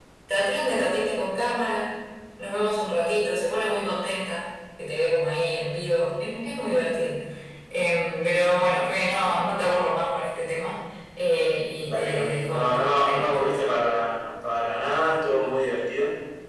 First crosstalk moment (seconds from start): 11.8 s

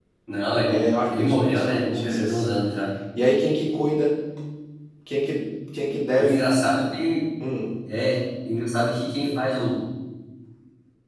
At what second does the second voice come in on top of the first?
0.7 s

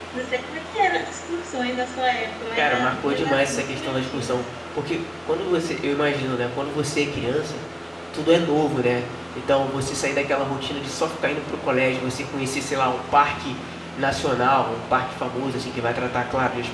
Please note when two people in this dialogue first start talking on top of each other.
2.5 s

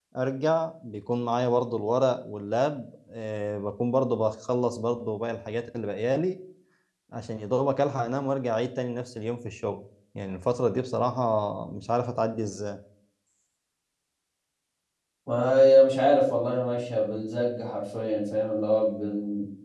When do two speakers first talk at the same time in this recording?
none

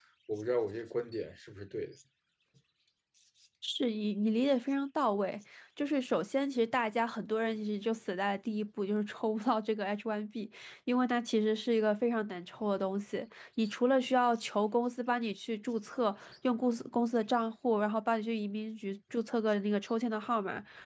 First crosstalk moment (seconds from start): none

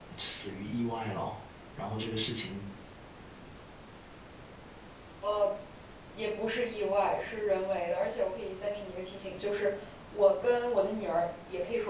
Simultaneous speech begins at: none

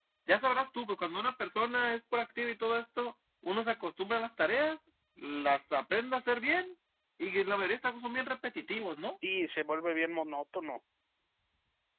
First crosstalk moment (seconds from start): none

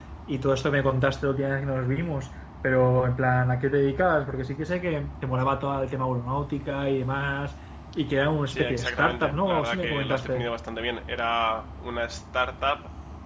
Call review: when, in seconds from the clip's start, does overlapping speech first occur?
8.5 s

